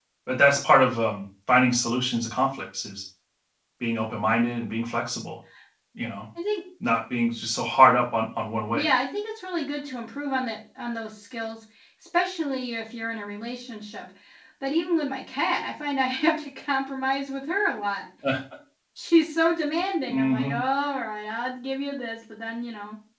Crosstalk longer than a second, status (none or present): none